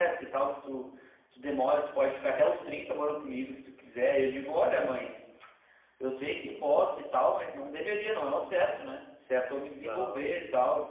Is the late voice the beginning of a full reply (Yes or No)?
No